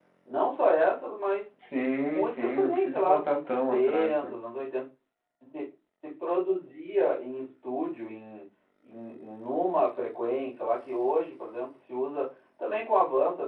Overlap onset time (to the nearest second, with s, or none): 2 s